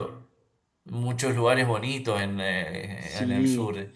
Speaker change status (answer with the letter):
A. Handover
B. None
A